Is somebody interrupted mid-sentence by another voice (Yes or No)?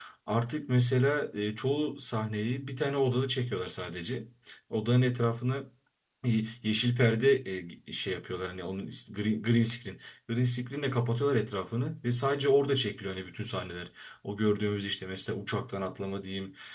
No